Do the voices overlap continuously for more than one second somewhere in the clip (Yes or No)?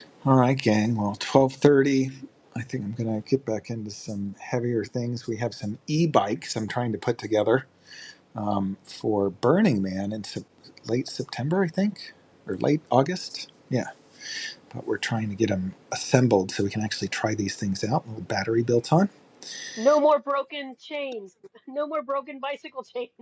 No